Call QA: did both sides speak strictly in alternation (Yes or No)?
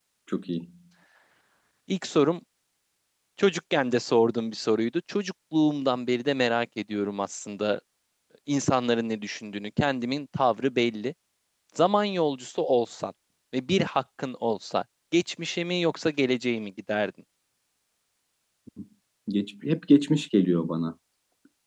Yes